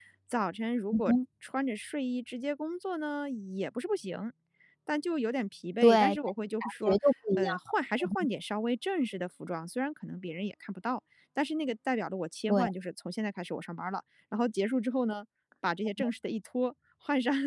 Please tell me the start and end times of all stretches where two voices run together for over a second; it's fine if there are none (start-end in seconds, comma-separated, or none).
none